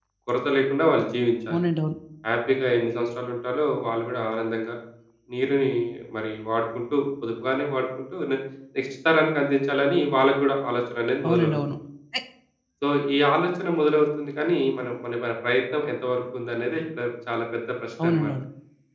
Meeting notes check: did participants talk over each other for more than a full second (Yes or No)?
No